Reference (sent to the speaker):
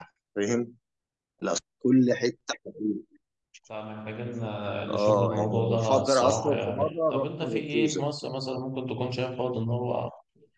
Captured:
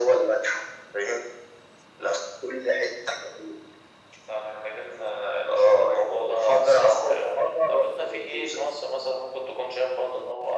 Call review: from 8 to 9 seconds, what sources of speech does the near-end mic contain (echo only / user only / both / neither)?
echo only